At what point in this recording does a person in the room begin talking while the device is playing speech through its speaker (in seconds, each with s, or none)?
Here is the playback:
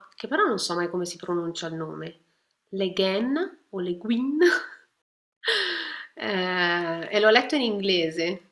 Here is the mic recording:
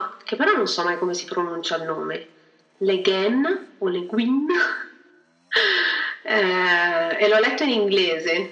none